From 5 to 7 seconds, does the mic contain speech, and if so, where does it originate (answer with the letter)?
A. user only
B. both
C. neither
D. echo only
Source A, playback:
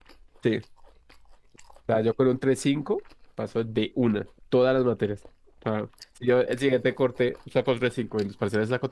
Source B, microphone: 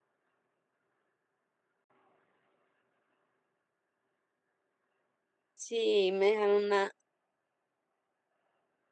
A